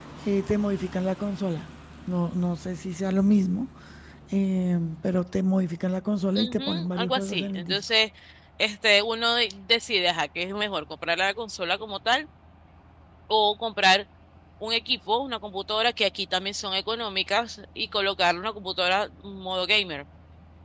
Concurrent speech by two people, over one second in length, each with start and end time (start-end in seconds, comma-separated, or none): 6.4-7.8